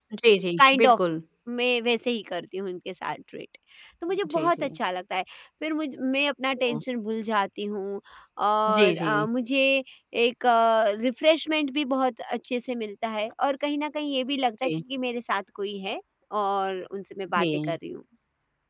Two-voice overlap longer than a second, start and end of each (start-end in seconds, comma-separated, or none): none